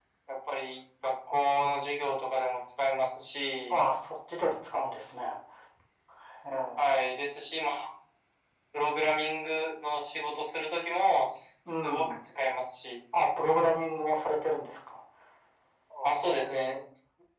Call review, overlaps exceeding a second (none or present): none